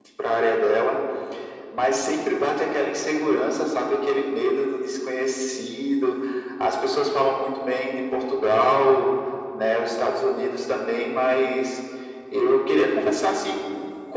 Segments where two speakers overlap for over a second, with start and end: none

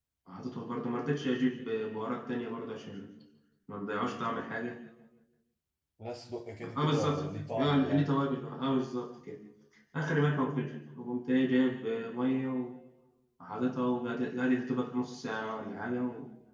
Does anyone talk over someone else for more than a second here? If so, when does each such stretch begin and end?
6.6-8.1

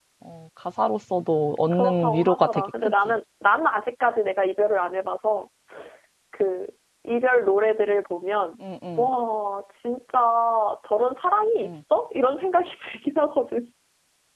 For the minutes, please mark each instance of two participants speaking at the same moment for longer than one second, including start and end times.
1.7-2.9

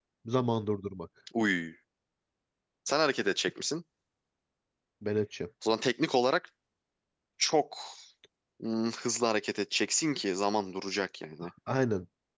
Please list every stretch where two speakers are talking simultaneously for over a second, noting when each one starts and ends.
none

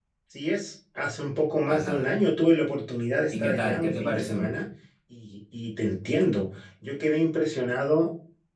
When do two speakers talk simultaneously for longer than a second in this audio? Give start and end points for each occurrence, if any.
3.3-4.5

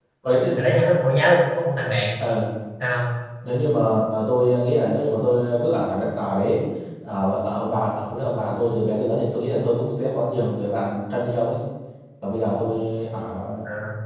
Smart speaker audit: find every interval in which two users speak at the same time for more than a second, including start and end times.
none

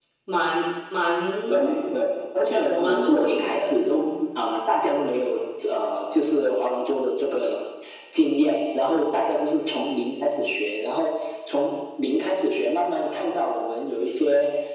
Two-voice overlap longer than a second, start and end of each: 2.4-3.7

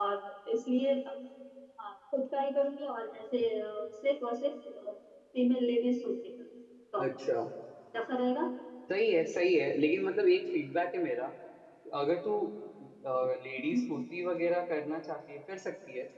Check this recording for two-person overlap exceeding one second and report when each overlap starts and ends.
none

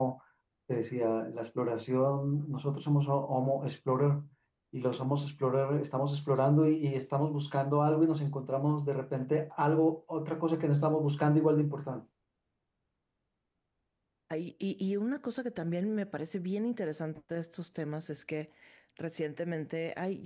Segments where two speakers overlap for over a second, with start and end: none

